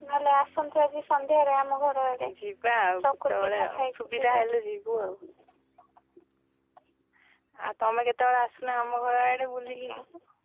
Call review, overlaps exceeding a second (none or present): present